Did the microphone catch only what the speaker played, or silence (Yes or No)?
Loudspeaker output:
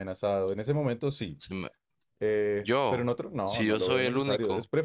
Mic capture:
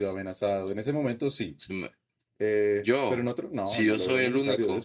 Yes